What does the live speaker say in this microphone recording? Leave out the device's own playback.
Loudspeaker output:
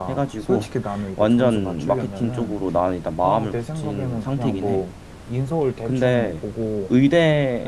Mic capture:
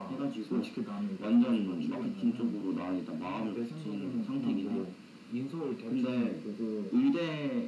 none

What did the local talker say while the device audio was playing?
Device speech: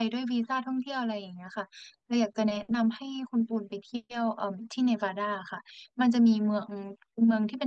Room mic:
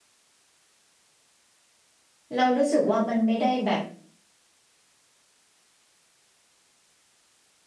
เรารู้สึกว่ามันไม่ได้แบบ

